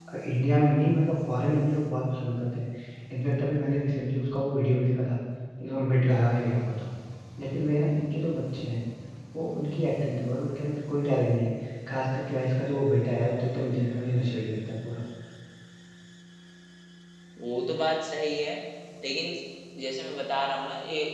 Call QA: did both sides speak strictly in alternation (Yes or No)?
Yes